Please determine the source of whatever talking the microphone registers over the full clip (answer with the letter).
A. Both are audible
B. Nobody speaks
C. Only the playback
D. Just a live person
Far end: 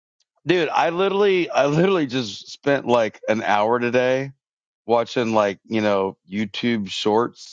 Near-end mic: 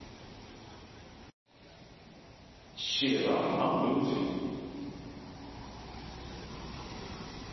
D